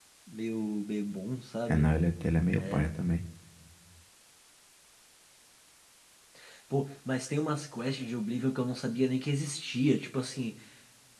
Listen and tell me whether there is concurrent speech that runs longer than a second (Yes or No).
No